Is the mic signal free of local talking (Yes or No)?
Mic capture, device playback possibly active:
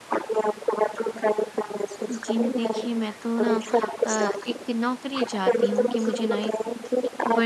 No